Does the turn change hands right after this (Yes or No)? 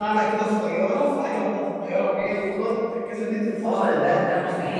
Yes